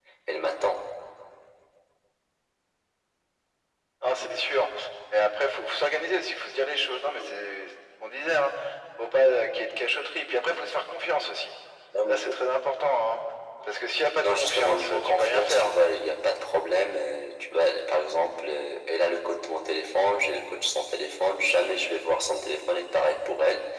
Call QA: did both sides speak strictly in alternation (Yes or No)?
No